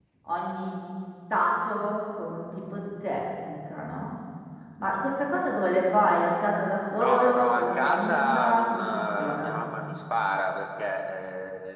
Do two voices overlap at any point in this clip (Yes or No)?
Yes